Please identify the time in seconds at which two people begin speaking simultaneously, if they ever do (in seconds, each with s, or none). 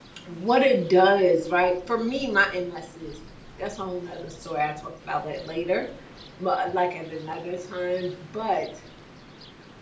none